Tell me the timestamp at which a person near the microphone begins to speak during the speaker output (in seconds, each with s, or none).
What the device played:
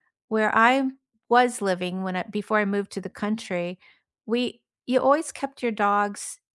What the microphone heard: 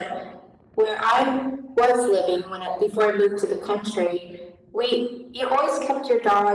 none